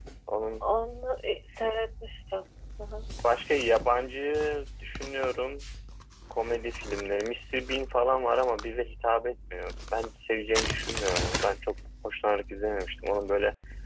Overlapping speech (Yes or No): No